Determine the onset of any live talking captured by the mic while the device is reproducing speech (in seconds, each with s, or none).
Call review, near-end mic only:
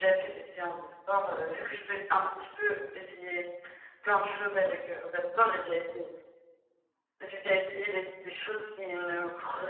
none